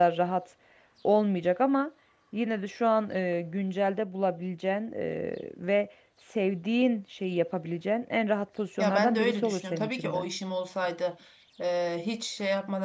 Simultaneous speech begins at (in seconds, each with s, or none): 8.8 s